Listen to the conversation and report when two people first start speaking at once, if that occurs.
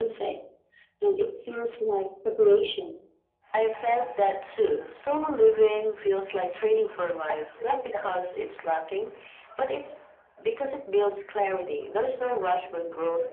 none

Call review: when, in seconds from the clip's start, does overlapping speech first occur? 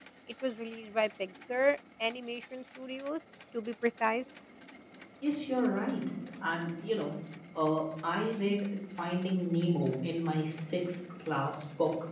none

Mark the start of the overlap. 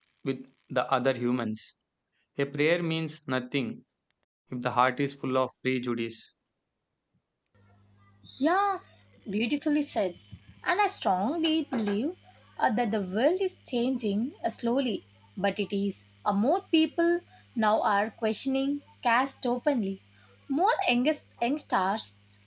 none

